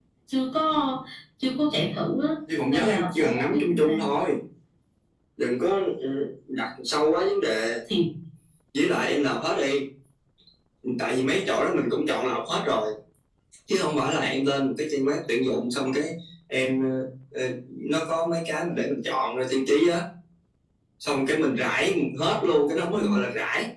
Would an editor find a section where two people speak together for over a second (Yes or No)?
Yes